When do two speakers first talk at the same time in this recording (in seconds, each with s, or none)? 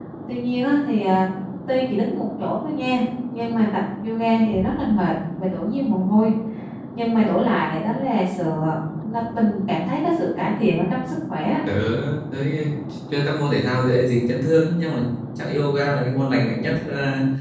none